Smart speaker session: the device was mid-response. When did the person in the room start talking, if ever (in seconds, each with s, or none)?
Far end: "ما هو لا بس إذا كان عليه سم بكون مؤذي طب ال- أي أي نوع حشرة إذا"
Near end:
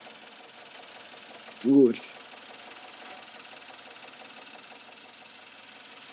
1.6 s